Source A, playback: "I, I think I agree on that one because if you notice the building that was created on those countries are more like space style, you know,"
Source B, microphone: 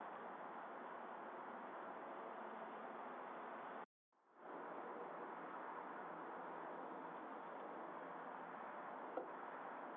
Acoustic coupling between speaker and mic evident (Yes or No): No